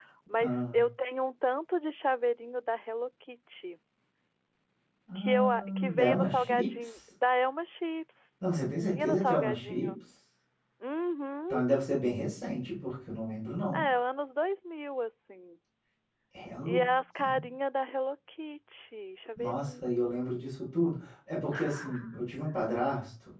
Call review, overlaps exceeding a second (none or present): present